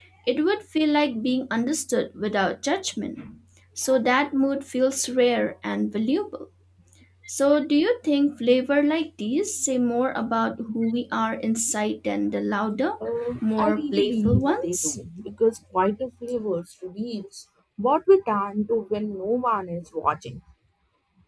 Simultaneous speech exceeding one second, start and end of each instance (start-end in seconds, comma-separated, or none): 13.6-14.9